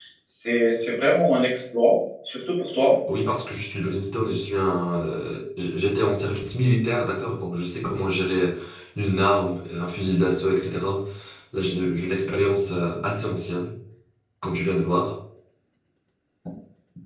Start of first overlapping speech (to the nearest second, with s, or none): none